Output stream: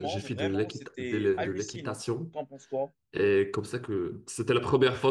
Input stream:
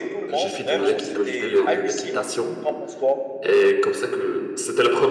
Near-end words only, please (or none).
Tu vois, tu vois jusqu'où pas.